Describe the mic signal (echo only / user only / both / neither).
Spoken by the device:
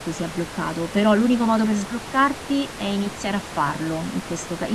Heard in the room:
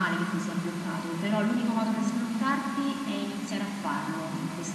echo only